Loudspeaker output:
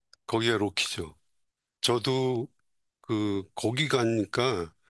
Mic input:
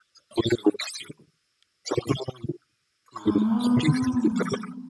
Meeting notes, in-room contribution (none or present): present